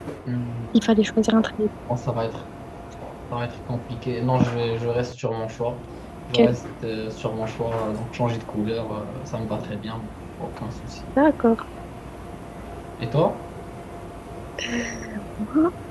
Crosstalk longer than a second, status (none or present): none